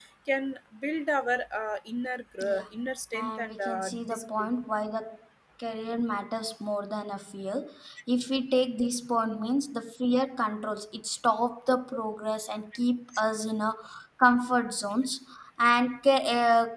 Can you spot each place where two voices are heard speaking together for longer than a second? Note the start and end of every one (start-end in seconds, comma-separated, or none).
3.1-4.5